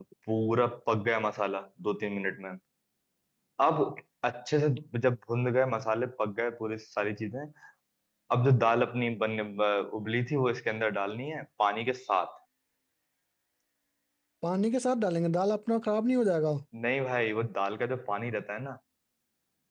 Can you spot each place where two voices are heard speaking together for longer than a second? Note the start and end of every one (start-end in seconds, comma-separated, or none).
none